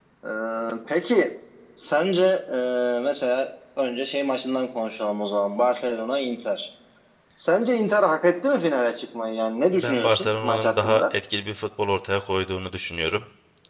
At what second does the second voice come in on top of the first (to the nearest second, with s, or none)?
10 s